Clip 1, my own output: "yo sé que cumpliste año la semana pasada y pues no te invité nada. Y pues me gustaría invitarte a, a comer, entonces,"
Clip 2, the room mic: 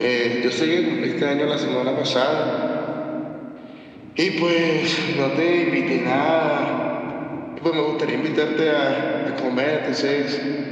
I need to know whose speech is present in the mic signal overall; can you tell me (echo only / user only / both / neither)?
echo only